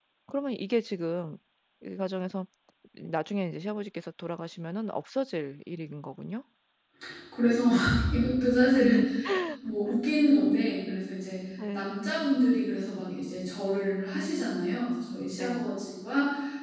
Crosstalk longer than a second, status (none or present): none